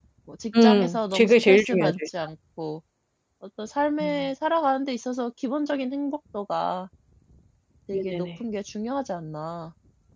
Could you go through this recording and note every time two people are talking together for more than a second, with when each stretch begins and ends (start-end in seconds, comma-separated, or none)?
0.6-2.1